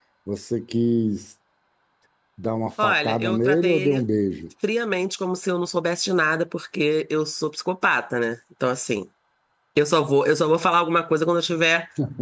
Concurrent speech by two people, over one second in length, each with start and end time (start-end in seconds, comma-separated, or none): 2.8-4.0